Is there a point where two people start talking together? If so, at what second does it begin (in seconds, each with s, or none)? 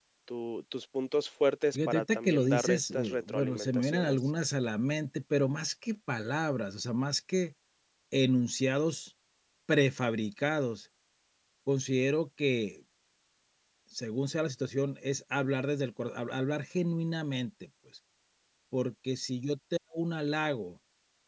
1.7 s